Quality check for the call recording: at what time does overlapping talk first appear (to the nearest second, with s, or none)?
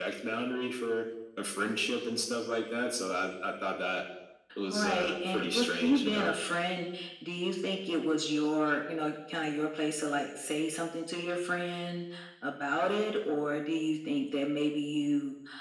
5 s